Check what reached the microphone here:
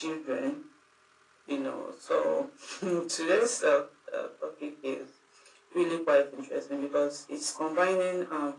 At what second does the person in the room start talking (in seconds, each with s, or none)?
none